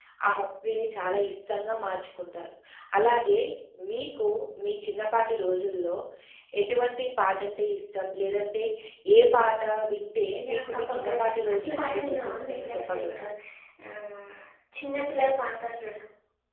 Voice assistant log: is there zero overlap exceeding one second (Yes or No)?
No